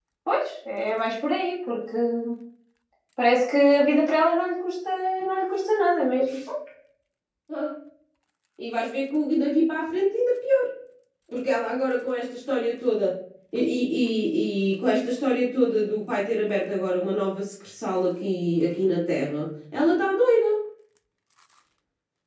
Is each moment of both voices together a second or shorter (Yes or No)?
Yes